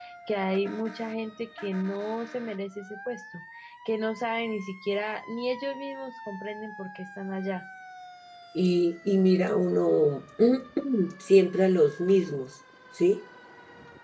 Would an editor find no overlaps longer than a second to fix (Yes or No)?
Yes